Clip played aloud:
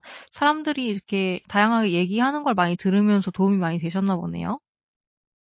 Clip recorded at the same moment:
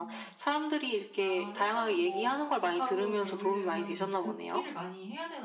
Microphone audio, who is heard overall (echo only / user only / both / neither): both